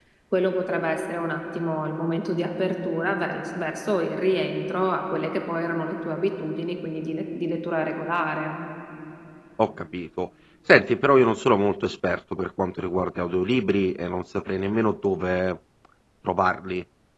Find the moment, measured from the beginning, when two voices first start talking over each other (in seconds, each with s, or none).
none